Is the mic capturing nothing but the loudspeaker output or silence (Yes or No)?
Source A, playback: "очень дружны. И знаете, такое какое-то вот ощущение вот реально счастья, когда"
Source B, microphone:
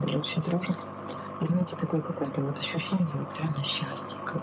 Yes